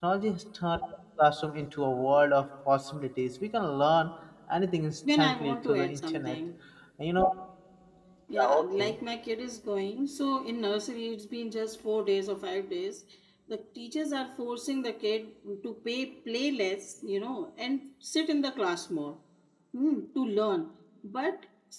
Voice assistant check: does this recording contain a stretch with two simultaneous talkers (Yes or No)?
Yes